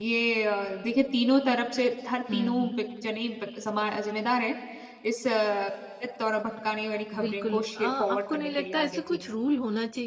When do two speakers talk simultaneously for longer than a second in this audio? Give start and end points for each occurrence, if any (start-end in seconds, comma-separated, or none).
7.1-9.2